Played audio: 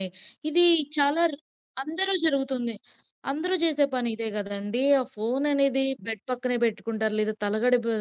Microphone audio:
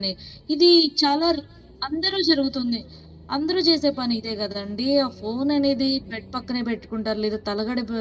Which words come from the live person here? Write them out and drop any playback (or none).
none